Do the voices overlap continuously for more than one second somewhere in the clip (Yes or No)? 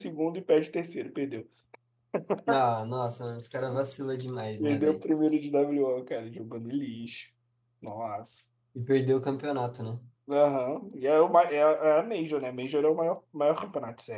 No